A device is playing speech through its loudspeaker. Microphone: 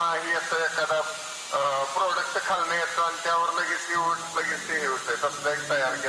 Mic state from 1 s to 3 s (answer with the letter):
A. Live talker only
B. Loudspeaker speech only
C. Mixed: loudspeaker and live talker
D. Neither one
B